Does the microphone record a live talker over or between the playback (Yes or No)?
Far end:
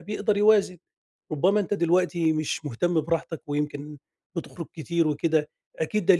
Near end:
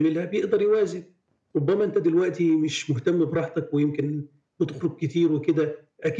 No